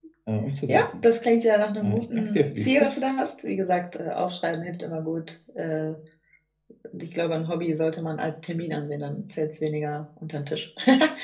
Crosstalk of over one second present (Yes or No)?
Yes